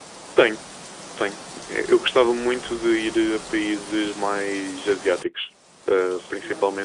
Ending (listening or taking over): listening